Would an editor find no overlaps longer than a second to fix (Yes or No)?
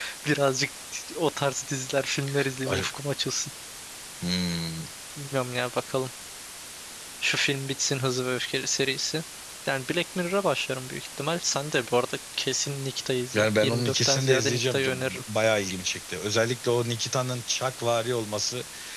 No